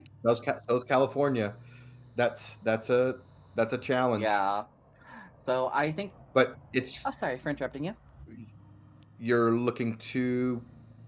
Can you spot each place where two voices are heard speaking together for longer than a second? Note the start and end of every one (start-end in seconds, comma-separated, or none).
none